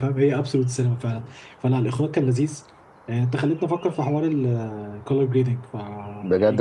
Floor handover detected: Yes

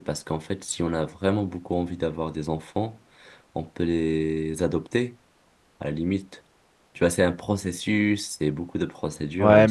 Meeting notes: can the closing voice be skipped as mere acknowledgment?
No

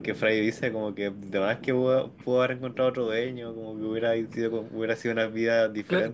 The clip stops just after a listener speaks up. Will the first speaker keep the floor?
No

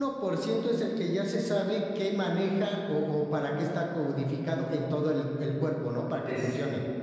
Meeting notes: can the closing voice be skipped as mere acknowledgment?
No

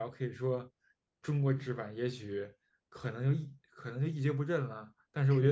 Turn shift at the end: Yes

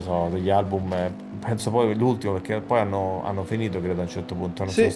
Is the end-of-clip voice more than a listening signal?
Yes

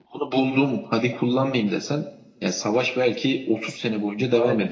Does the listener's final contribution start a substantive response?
No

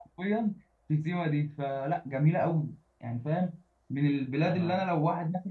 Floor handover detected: No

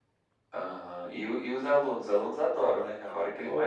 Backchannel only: No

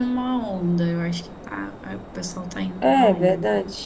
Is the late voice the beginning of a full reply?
Yes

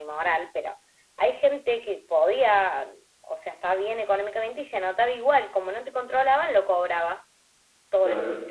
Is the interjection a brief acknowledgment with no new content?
Yes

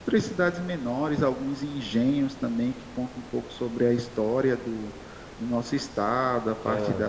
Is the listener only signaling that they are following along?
Yes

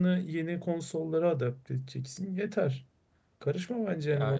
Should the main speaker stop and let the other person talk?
Yes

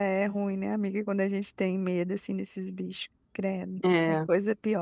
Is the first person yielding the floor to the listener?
No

